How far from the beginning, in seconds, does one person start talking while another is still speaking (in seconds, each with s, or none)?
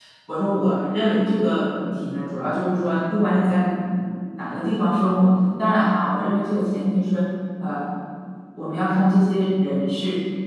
none